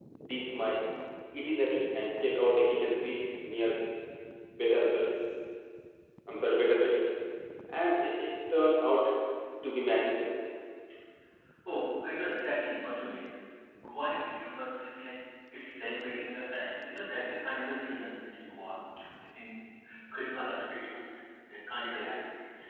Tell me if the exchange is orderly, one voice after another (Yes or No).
Yes